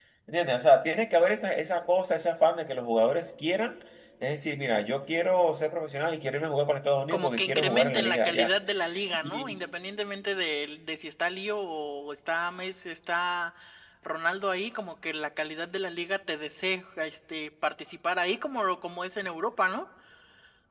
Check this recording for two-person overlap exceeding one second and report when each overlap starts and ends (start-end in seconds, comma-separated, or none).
7.1-8.5